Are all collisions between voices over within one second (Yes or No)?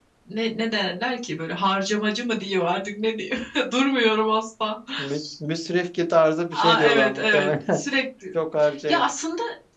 No